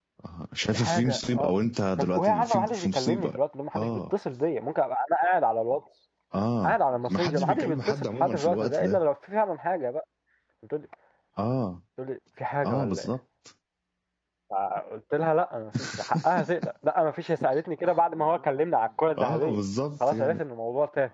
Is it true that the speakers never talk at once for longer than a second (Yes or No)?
No